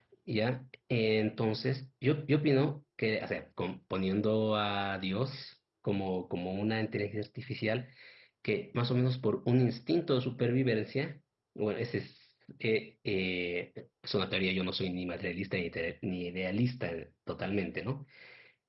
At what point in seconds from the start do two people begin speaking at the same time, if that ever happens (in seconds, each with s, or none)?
none